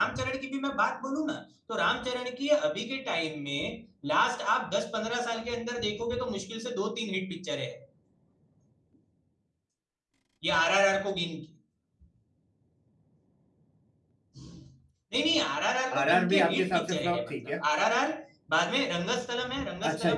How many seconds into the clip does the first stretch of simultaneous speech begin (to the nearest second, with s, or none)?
16 s